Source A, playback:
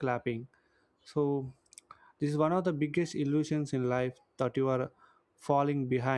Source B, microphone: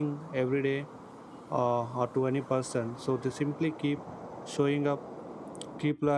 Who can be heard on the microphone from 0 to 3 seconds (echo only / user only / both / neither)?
user only